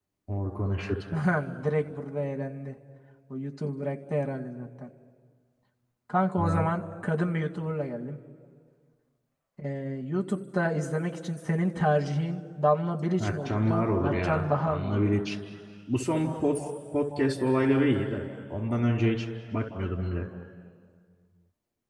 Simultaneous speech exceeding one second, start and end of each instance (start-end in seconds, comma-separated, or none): 13.2-15.2